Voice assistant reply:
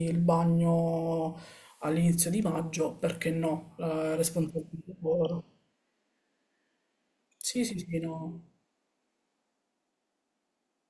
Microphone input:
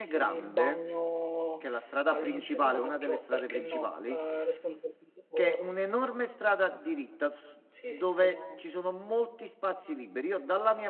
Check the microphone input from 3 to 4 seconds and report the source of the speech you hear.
both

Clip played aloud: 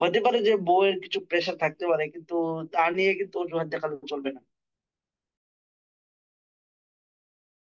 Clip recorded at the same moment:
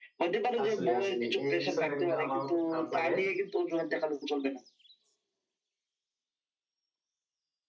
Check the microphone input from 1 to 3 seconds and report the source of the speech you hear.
both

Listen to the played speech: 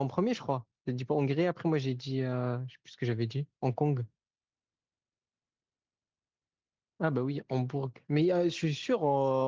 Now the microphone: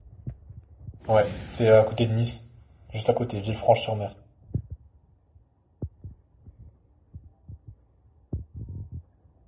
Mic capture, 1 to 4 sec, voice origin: user only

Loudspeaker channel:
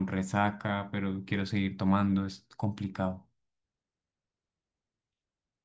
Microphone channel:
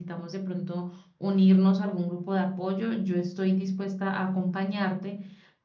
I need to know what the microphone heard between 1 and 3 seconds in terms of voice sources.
user only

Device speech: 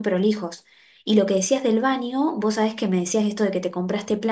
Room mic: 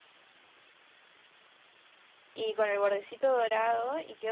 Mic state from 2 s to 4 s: user only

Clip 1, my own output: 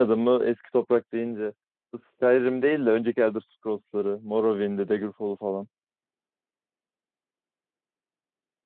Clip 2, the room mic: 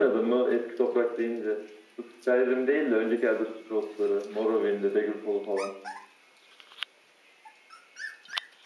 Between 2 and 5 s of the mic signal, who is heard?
echo only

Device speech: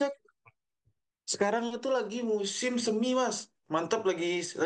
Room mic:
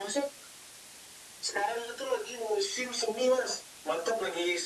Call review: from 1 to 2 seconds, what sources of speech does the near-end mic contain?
echo only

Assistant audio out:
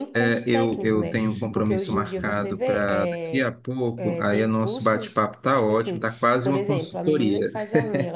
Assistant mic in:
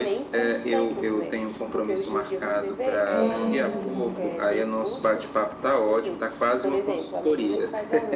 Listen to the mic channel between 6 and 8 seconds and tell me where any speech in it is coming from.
echo only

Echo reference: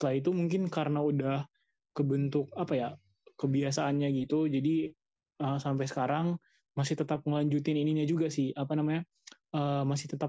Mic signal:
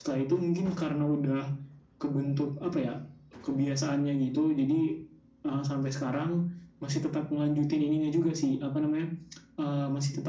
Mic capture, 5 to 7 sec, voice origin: echo only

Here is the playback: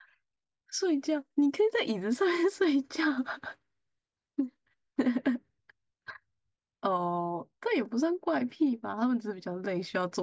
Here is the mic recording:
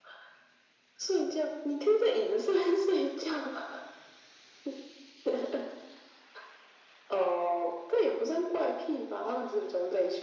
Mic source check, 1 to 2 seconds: echo only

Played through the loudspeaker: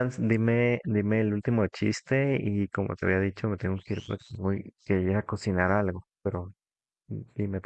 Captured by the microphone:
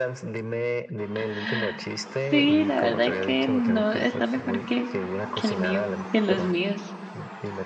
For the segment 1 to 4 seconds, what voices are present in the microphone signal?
both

